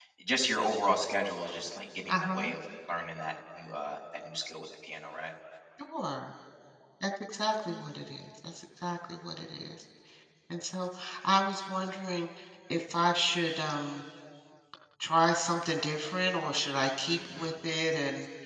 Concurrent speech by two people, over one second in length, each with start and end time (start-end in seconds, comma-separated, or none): none